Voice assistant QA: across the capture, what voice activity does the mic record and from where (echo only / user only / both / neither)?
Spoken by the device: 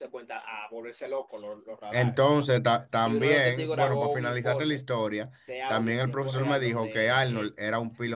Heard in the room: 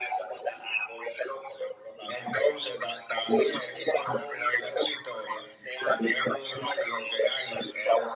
echo only